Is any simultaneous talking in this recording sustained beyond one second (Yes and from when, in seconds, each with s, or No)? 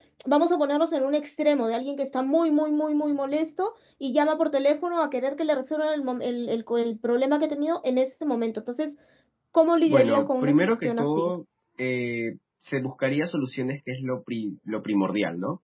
Yes, from 9.9 s